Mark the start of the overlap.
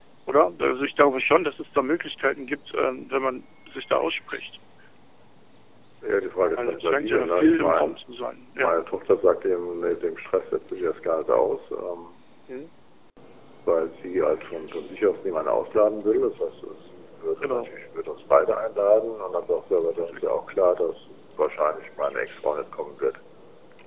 7 s

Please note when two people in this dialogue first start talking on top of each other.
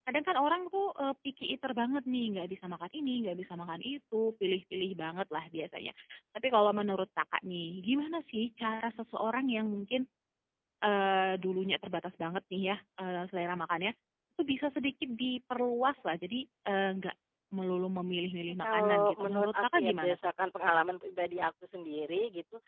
19 s

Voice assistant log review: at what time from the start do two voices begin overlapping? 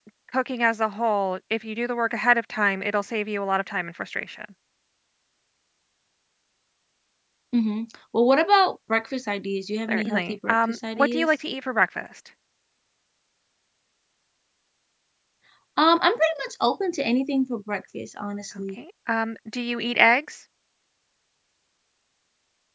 10 s

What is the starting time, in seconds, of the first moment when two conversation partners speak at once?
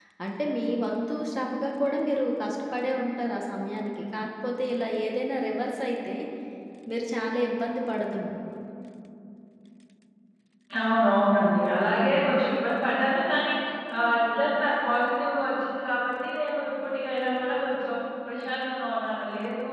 none

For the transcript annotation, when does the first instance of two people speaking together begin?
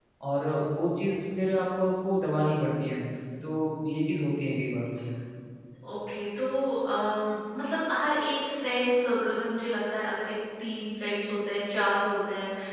none

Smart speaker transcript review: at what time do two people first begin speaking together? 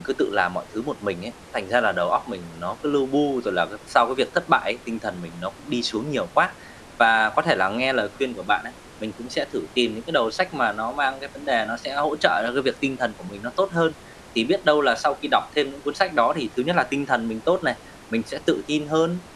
none

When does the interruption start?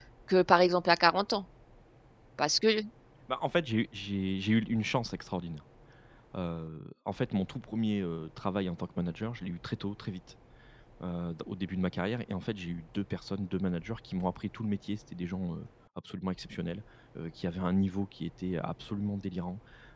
none

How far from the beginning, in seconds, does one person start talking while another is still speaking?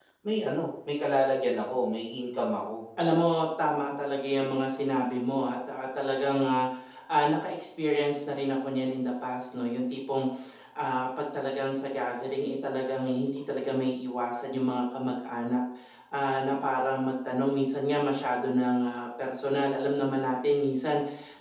none

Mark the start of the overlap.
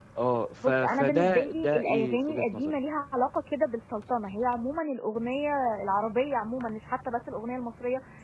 1 s

